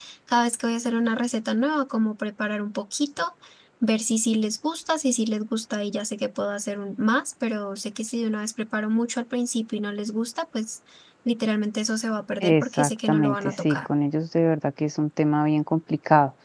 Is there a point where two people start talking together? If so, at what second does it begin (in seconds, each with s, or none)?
12.4 s